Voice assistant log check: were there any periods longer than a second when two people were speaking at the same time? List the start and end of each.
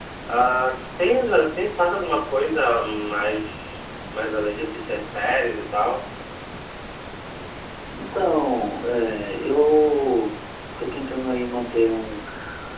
none

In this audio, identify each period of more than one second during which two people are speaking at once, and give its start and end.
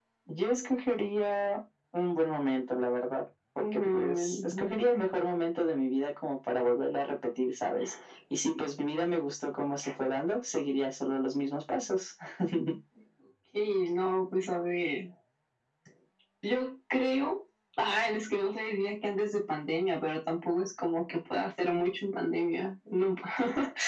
3.6-4.8

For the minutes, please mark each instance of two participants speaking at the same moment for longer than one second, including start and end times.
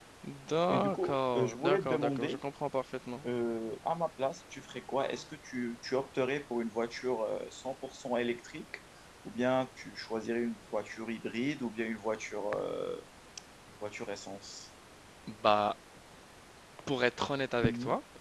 0.7-2.4

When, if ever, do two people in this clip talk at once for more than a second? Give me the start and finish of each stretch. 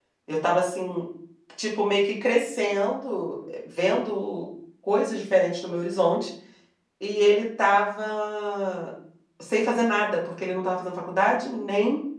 none

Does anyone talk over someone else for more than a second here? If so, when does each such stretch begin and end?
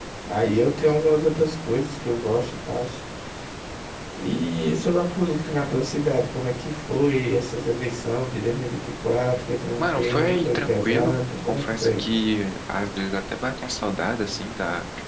9.8-12.0

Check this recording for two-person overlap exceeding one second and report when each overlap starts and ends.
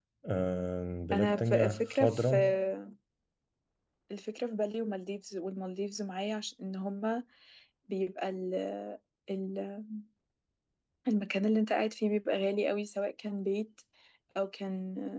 1.1-2.4

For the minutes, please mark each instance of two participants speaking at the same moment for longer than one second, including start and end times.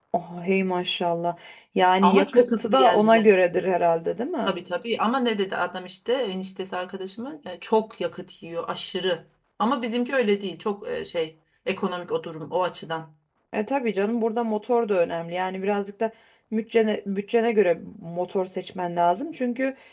2.0-3.3

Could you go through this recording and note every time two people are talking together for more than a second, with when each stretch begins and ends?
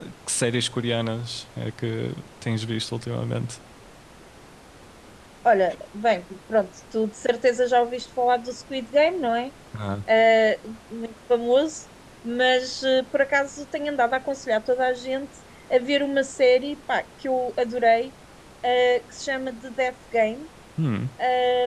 none

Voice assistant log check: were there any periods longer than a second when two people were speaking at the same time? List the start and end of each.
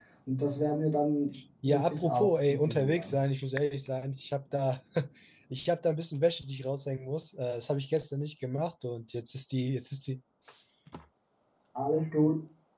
1.6-3.1

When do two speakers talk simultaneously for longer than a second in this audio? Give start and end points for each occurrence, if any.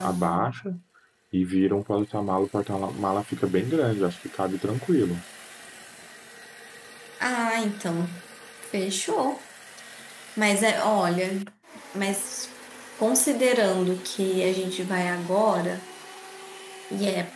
none

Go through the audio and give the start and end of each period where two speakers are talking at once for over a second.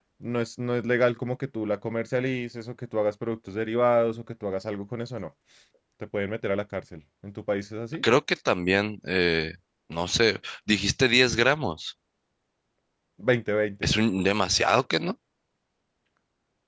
none

